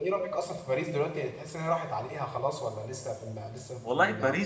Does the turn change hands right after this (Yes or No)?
Yes